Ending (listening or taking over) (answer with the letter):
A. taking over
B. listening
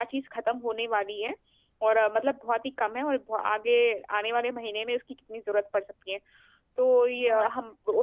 B